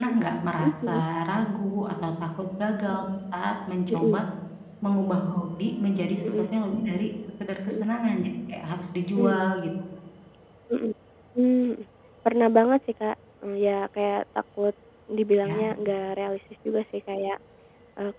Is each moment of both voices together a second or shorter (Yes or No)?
Yes